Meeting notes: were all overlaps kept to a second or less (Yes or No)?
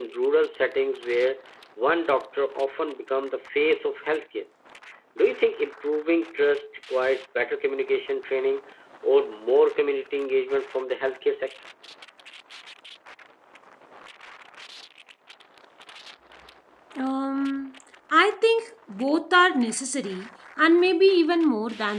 Yes